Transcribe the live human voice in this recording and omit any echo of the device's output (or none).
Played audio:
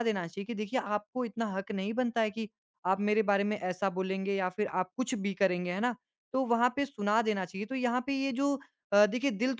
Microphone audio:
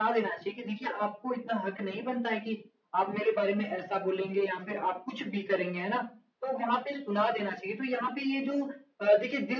none